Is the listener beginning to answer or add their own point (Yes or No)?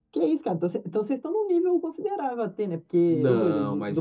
Yes